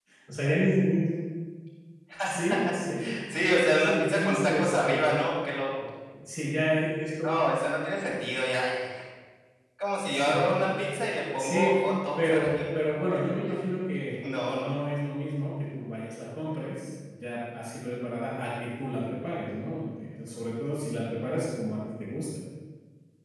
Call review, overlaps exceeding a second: present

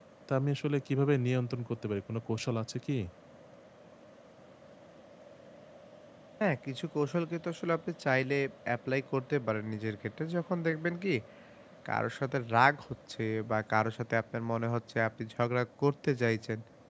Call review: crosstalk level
none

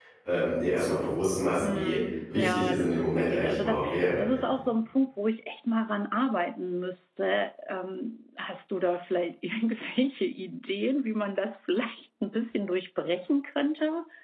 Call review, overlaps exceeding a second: present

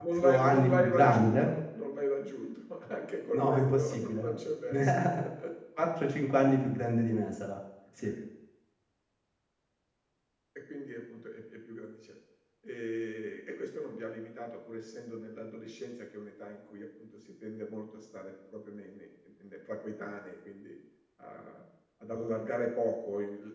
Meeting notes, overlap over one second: present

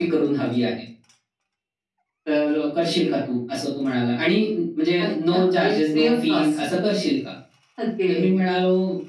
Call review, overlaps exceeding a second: present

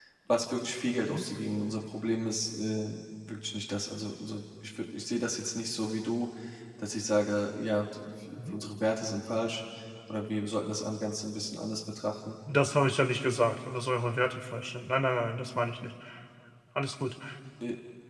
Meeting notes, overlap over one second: none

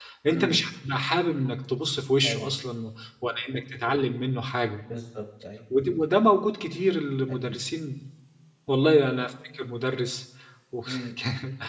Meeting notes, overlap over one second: none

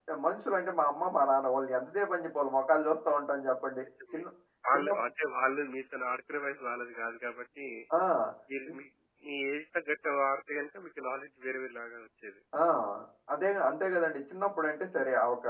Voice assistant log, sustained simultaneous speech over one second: none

